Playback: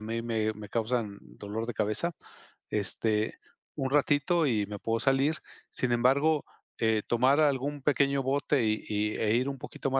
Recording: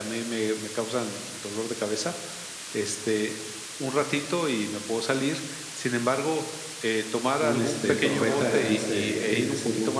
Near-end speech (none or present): present